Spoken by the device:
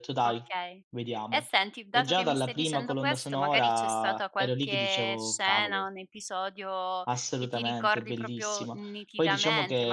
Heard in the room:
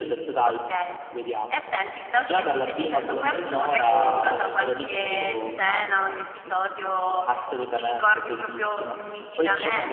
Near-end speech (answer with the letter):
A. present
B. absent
A